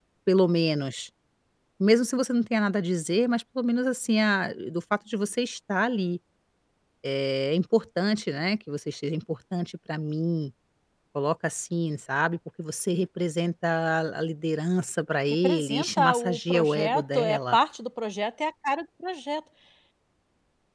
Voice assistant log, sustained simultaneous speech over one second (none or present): present